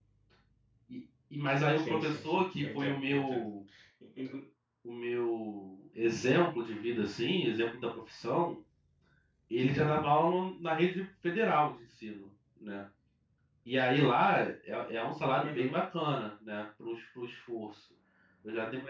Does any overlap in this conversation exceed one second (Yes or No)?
Yes